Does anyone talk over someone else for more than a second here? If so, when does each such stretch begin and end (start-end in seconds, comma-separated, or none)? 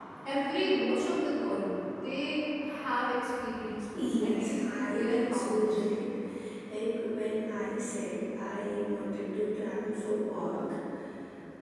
3.9-5.8